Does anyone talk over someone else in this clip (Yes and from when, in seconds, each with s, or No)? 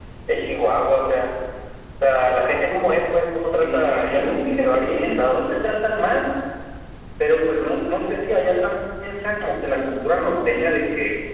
Yes, from 3.6 s